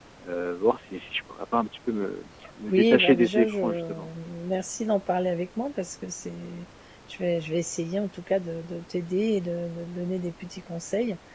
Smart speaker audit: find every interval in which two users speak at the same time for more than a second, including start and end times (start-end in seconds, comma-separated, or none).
2.7-4.1